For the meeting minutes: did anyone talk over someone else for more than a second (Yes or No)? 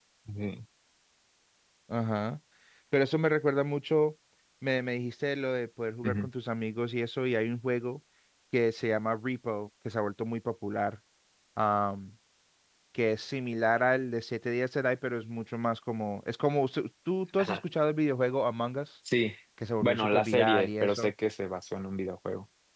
Yes